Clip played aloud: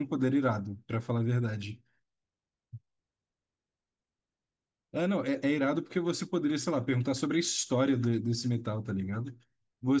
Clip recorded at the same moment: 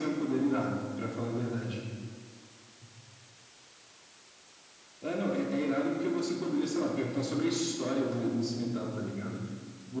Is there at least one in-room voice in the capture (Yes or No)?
No